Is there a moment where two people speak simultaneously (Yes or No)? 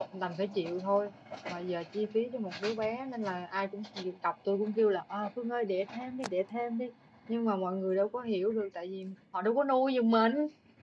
No